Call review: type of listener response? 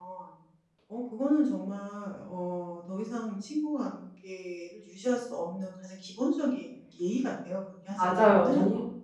taking over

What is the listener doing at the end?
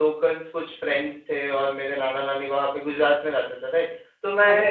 listening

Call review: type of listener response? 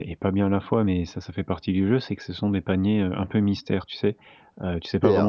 taking over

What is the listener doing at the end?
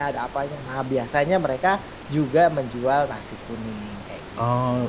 taking over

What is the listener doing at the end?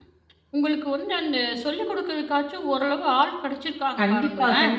taking over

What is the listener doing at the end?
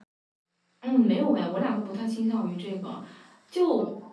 listening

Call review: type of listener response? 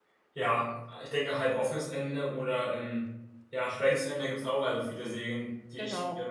listening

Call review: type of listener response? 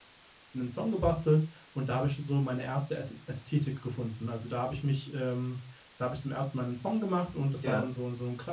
listening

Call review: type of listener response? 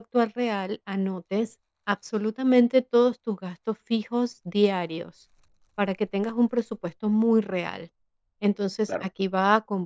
listening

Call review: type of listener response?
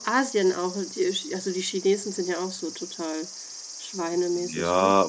taking over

